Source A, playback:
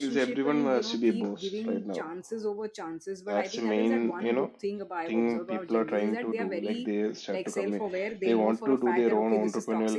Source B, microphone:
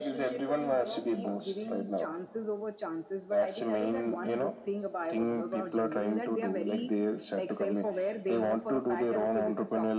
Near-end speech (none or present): none